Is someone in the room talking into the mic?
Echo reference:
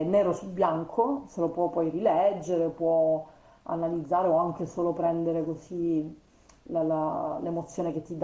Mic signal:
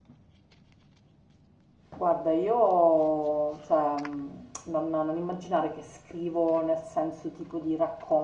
Yes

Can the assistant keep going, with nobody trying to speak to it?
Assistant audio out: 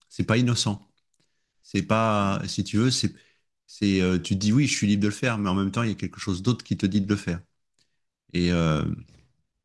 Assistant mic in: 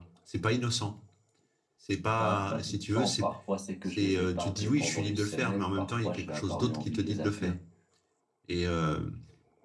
No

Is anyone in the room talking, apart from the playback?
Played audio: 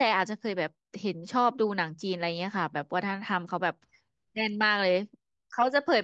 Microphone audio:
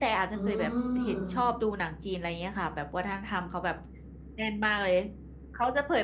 Yes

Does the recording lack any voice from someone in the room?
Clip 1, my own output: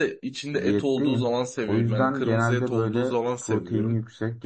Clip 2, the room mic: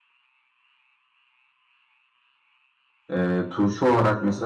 No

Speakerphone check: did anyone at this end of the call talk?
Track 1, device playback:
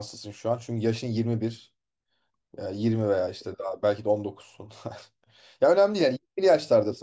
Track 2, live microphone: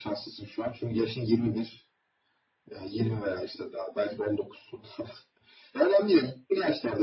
No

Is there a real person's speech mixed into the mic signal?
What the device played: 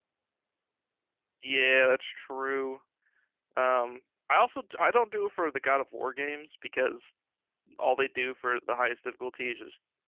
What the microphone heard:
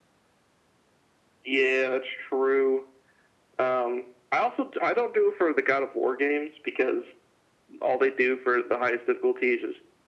No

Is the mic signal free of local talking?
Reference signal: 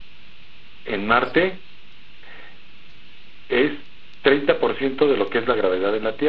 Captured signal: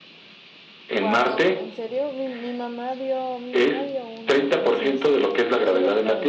No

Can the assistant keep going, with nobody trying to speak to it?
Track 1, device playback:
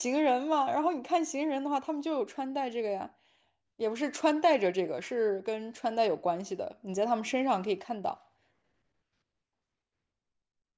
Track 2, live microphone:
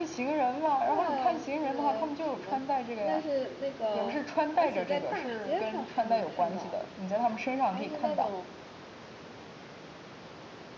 No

